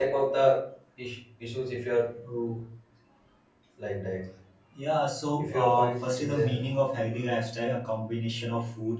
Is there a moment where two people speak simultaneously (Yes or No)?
Yes